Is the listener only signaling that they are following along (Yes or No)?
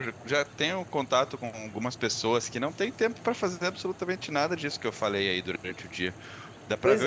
Yes